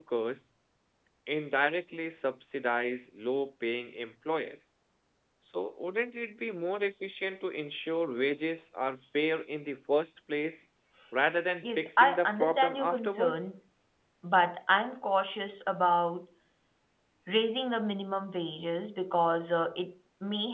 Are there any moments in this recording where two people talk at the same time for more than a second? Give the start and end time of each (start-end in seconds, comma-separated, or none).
11.6-13.4